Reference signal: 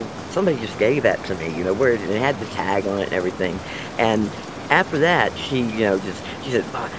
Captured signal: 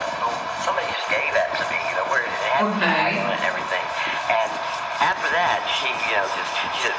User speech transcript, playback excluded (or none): Okay.